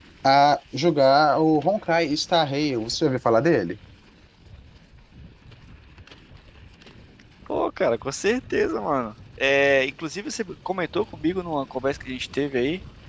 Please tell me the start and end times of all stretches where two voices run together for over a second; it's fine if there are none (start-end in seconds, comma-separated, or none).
none